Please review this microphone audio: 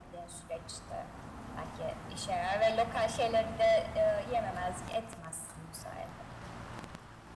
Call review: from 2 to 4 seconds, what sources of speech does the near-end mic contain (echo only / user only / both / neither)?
echo only